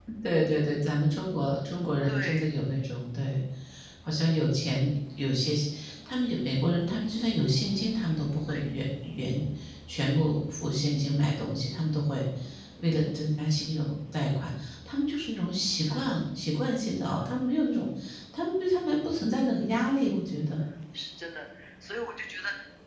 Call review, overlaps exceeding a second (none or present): none